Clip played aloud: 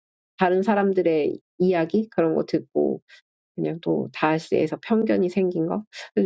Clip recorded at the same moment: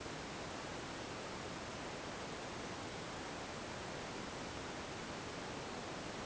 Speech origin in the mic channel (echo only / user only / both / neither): neither